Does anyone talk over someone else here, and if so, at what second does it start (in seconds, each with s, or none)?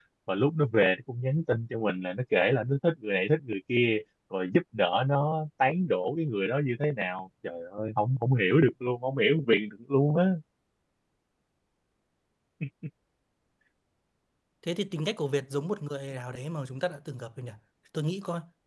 none